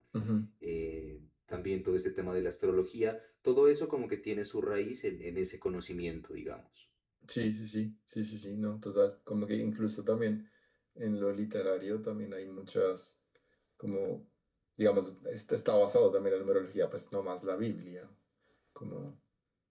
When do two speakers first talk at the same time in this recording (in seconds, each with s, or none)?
none